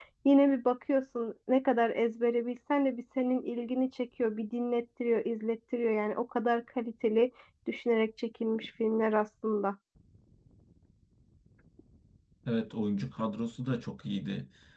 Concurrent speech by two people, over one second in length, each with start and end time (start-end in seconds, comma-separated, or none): none